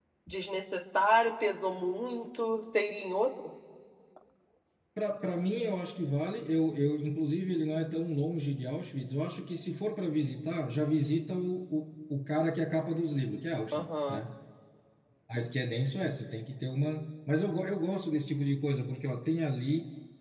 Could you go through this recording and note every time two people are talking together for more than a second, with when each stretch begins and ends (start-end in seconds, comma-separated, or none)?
none